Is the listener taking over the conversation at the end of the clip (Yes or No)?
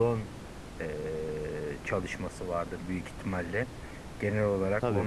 No